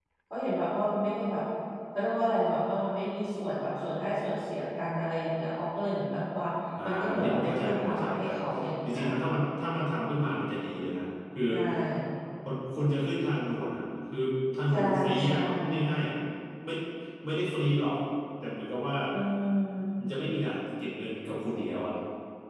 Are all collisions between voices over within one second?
No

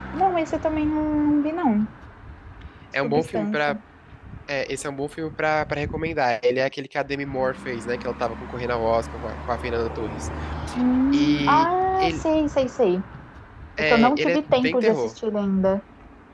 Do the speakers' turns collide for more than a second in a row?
Yes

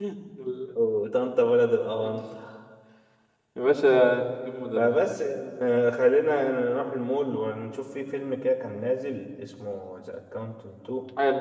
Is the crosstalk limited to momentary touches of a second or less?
Yes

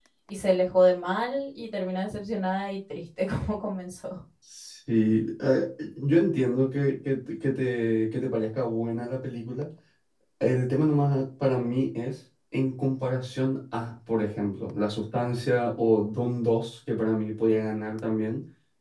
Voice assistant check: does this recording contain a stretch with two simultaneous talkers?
No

